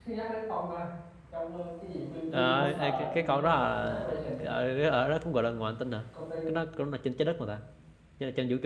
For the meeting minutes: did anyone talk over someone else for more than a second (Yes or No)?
Yes